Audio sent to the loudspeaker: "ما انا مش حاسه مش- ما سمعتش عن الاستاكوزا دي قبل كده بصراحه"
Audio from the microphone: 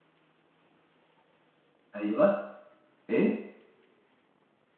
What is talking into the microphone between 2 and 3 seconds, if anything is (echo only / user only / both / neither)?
user only